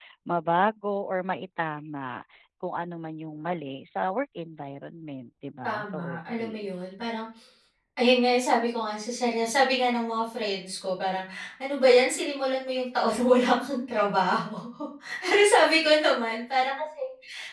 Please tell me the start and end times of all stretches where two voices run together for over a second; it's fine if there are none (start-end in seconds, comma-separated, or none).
5.6-6.9